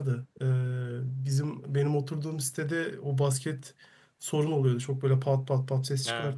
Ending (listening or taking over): listening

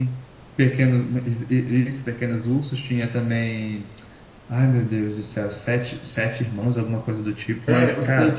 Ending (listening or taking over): taking over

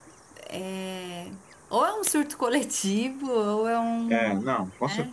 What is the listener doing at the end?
taking over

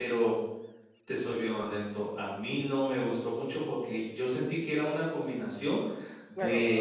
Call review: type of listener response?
taking over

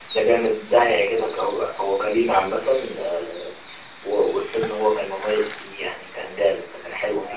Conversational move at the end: taking over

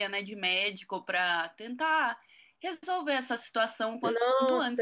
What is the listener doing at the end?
taking over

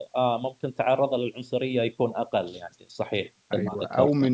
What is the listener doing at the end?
taking over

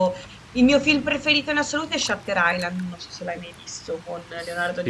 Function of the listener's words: taking over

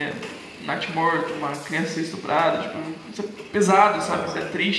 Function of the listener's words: listening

